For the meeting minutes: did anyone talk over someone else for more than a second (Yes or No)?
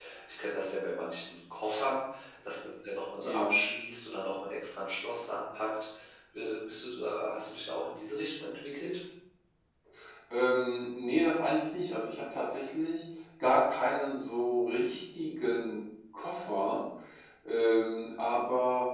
No